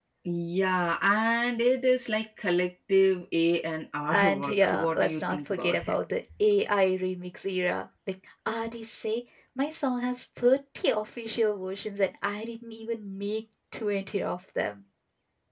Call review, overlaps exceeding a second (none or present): present